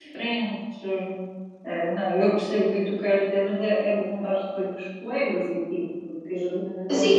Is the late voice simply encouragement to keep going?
No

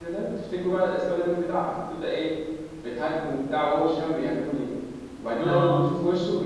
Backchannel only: Yes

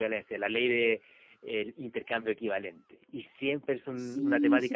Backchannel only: No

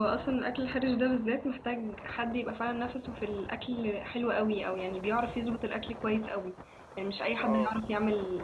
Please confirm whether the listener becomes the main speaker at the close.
No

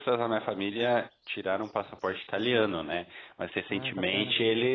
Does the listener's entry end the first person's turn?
No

